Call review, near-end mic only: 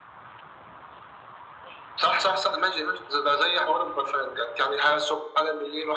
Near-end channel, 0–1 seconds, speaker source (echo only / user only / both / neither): neither